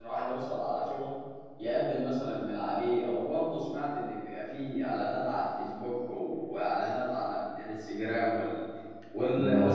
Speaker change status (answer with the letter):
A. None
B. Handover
B